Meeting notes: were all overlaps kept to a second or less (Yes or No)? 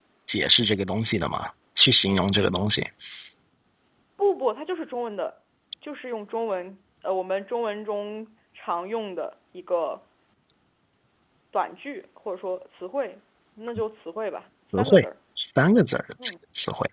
Yes